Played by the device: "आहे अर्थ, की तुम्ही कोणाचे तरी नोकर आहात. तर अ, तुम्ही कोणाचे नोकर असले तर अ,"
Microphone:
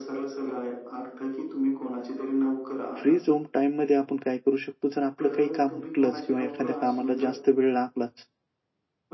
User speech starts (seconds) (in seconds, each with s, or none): 3.0 s